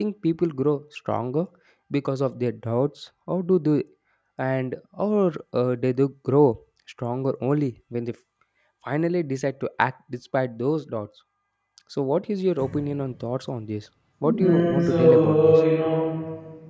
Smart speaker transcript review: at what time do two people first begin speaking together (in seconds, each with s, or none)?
14.2 s